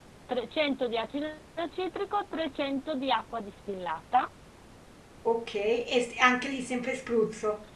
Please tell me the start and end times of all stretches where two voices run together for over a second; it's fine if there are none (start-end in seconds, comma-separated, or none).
none